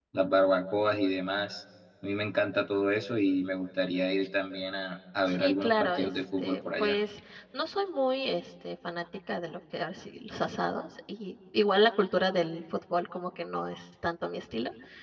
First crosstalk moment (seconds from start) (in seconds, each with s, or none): 5.2 s